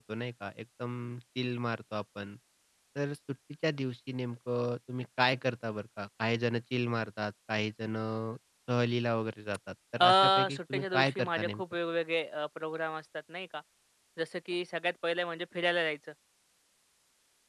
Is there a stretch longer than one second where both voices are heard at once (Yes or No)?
Yes